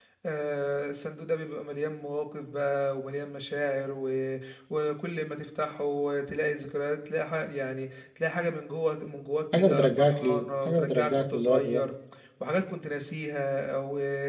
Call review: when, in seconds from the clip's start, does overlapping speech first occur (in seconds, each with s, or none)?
9.5 s